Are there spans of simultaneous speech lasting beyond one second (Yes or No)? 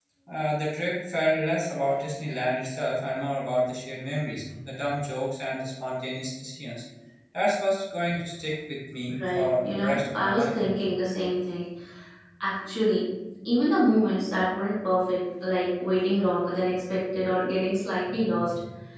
Yes